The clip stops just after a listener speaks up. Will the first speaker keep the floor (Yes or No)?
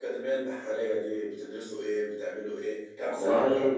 No